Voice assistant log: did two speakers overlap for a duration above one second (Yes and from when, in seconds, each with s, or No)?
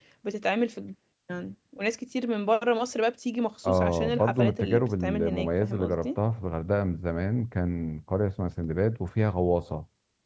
Yes, from 3.6 s